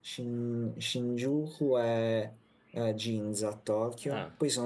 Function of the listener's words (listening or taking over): listening